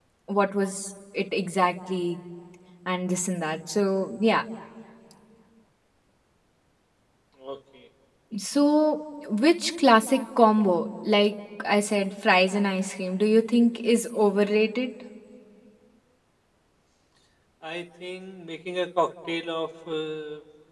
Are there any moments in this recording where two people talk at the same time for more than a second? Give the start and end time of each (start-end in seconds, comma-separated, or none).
none